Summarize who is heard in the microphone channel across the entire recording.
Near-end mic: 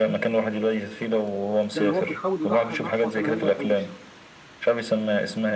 both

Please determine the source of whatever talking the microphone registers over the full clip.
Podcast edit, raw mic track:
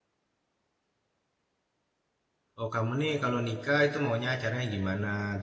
user only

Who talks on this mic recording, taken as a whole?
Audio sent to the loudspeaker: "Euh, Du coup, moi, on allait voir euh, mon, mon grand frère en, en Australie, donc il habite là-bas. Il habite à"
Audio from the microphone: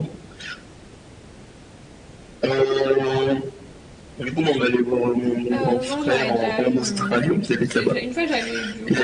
both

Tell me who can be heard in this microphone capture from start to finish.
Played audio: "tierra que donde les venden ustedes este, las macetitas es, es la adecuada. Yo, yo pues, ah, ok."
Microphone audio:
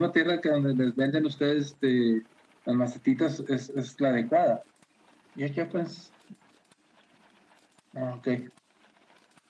echo only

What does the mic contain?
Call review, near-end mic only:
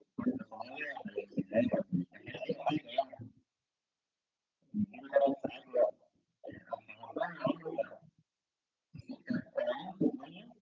echo only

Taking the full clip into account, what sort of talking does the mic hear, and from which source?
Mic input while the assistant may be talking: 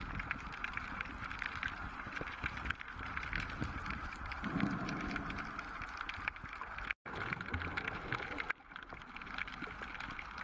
neither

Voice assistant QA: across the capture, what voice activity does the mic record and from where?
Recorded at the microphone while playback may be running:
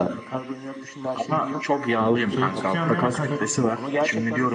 both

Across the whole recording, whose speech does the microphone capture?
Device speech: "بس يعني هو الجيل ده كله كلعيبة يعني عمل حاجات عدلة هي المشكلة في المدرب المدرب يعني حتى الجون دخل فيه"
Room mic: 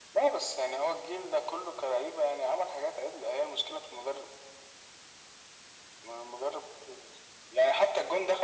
echo only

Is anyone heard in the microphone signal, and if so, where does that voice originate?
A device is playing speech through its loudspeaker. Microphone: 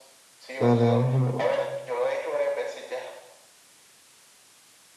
both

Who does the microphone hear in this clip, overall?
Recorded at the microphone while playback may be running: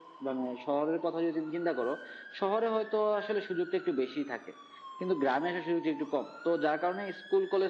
echo only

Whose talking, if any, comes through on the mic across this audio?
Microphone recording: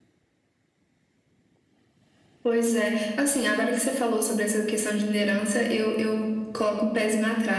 echo only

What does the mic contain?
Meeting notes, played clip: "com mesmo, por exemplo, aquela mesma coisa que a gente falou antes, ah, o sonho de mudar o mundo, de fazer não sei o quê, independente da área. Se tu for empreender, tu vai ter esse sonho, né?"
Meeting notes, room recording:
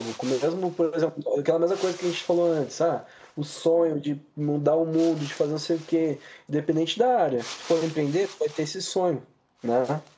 echo only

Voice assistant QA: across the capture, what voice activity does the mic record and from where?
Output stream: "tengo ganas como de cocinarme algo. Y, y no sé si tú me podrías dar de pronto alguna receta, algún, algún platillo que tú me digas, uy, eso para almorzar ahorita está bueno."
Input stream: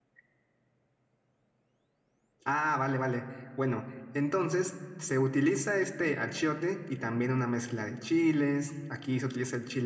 user only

